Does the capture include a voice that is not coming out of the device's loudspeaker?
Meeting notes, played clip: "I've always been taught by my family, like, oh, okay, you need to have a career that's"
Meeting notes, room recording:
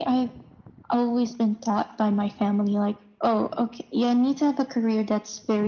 No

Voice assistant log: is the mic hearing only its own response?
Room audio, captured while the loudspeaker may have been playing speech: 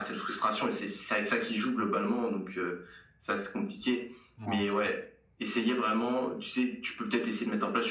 No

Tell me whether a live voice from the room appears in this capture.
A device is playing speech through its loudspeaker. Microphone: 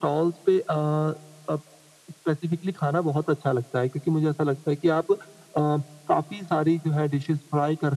No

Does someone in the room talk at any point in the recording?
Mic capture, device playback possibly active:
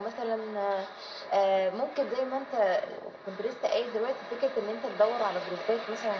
No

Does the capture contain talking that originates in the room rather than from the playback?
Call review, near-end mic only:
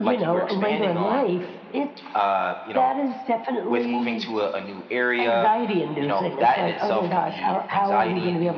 No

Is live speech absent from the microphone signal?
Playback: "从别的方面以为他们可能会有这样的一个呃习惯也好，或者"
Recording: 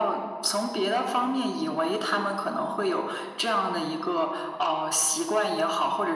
Yes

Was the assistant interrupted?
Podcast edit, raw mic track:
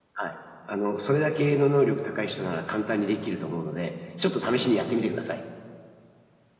No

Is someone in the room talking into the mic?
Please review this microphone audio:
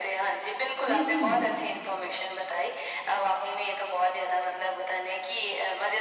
Yes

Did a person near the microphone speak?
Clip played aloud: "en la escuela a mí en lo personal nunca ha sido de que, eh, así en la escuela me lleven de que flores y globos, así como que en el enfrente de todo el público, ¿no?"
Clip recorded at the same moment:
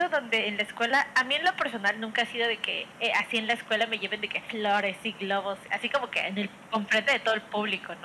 No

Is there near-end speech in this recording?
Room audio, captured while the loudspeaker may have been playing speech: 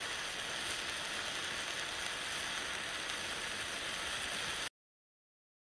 No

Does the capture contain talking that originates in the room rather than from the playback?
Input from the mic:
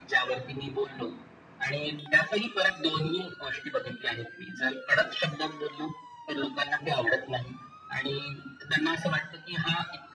No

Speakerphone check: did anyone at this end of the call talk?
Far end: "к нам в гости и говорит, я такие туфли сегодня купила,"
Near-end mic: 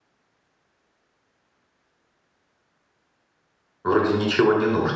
Yes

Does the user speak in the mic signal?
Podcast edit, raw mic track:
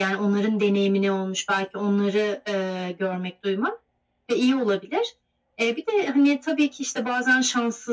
No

